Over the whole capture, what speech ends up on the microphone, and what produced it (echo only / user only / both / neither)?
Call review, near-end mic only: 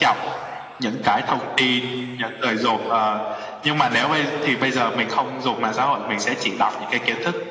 echo only